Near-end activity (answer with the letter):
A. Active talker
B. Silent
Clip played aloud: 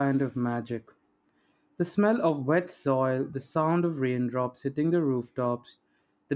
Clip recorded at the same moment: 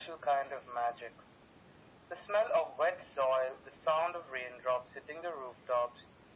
B